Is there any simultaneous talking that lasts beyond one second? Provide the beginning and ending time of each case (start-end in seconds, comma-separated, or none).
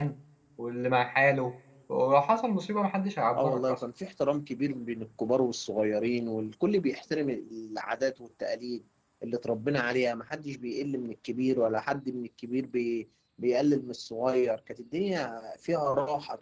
none